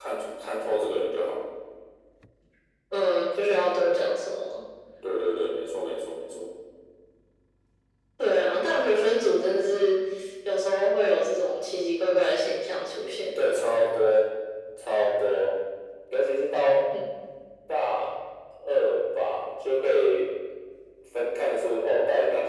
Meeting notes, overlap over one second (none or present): none